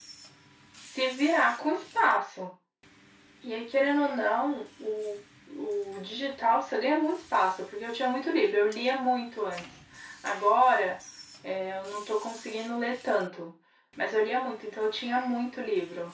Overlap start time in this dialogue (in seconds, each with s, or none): none